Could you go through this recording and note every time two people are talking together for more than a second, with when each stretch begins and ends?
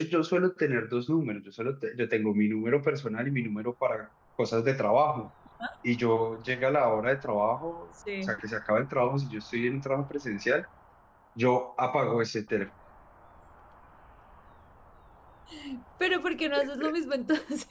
none

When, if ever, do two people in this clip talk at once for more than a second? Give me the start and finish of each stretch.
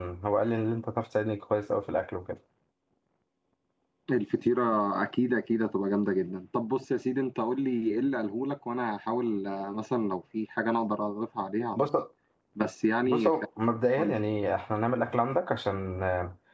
none

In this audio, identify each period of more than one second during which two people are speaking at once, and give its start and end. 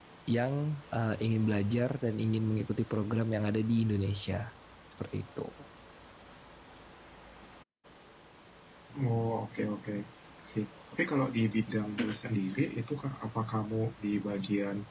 none

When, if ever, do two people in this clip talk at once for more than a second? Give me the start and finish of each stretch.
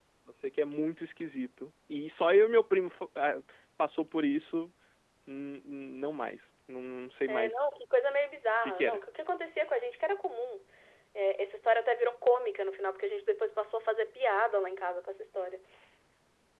none

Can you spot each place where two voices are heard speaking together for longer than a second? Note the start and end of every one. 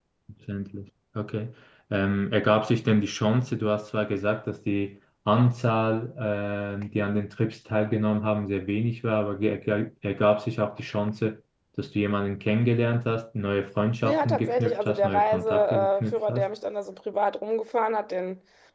14.0-16.5

